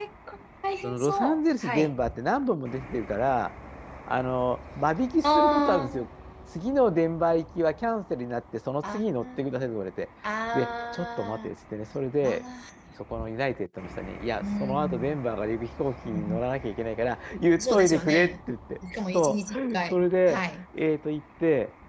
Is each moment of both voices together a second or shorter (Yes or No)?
No